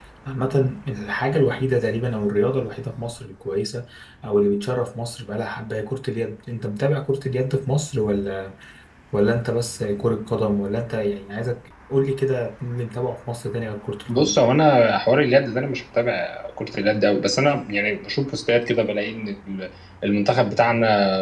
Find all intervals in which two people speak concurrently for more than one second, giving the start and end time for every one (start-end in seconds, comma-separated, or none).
none